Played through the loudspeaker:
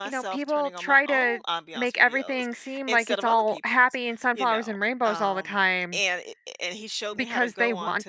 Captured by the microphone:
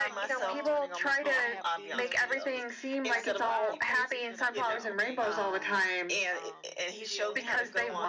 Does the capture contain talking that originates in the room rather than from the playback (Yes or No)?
Yes